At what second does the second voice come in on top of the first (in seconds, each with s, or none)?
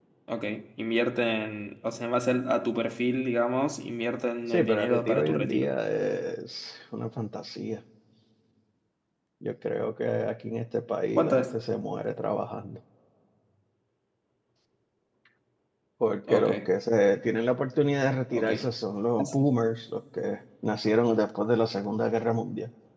4.5 s